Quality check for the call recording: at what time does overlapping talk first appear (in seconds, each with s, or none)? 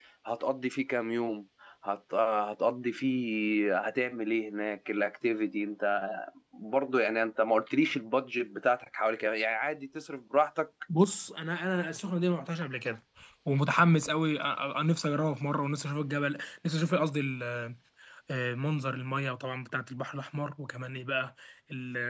none